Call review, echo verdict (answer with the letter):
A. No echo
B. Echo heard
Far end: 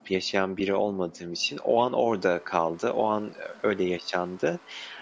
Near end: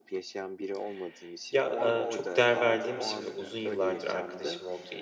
B